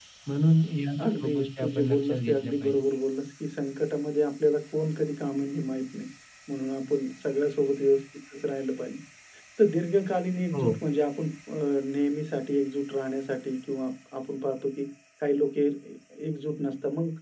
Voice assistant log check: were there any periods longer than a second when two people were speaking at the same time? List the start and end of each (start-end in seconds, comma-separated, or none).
1.1-2.7